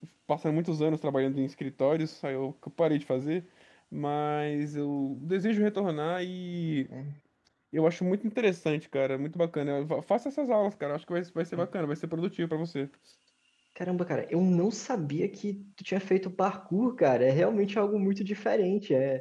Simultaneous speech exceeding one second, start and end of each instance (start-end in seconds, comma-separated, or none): none